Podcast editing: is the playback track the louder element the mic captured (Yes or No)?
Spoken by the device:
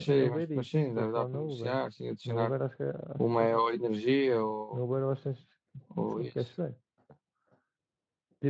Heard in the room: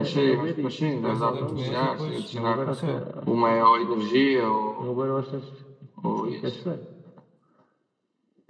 Yes